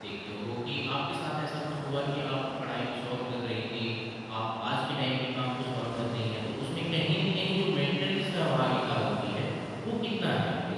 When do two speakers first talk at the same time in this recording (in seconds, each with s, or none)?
none